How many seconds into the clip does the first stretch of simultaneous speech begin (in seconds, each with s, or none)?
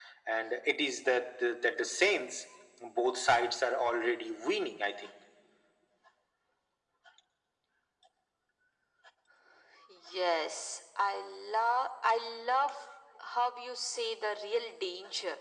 none